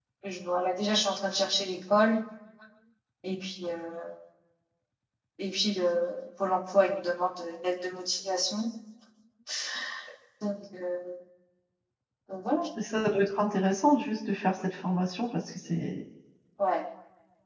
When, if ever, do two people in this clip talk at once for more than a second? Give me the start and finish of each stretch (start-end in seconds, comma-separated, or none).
none